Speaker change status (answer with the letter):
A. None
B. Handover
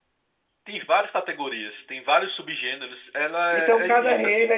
B